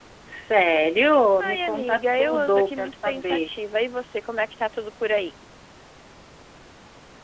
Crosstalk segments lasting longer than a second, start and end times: 1.4-3.5

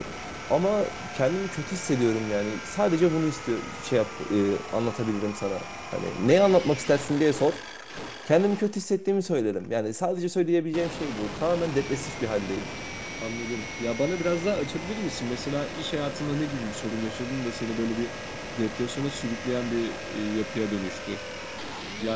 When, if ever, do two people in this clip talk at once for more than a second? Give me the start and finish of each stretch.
none

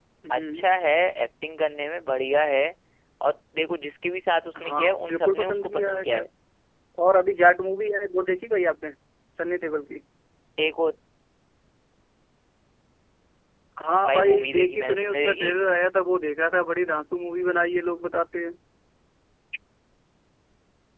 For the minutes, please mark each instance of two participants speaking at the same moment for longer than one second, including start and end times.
4.6-6.3, 14.1-15.5

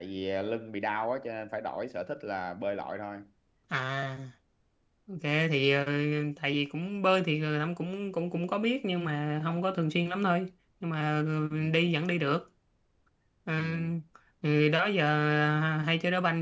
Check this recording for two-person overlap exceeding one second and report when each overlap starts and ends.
none

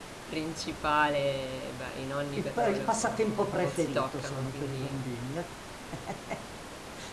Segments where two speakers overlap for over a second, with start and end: 2.4-5.0

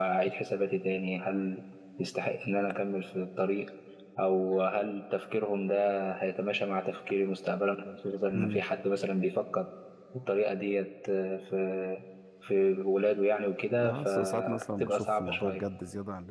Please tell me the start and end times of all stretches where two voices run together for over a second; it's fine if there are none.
13.8-15.6

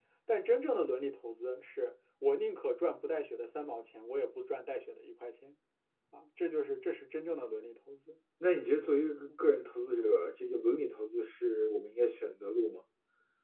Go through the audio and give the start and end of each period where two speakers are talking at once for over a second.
none

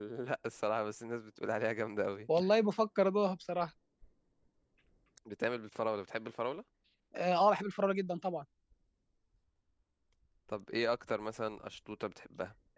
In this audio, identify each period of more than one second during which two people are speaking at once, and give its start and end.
none

